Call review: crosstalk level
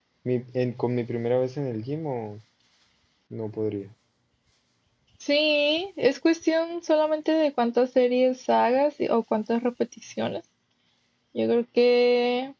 none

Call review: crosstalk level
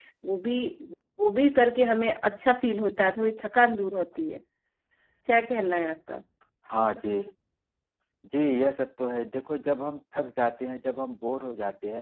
none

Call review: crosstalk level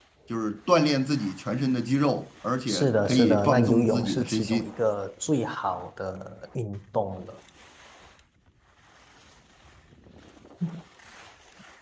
present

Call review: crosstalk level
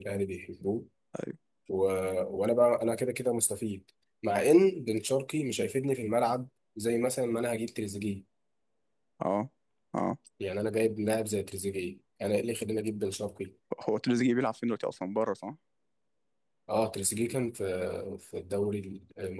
none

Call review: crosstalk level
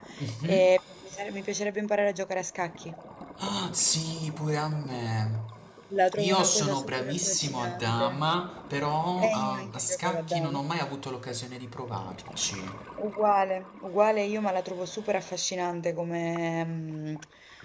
present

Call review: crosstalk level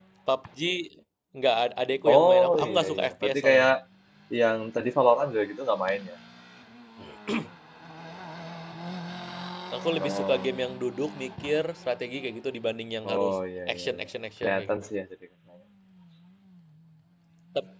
present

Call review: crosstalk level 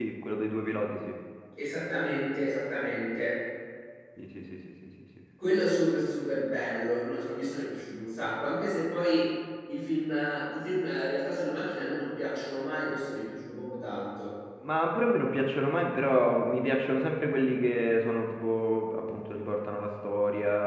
none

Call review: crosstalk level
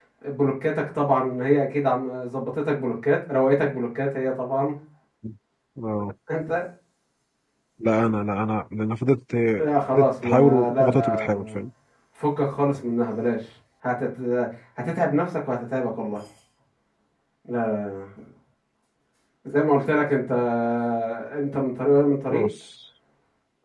present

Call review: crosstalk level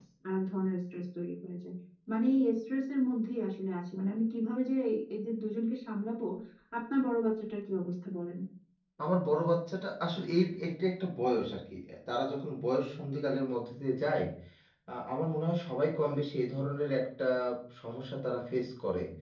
none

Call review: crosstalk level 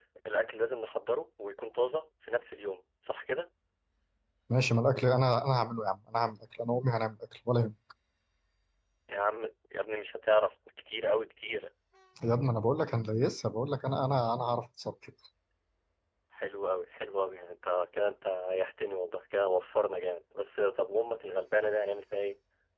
none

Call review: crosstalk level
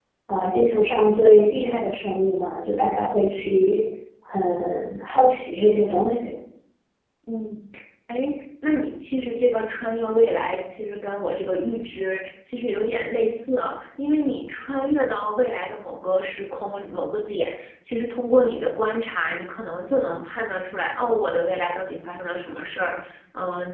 none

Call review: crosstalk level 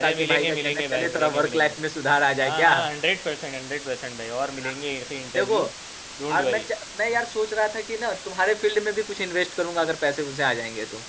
present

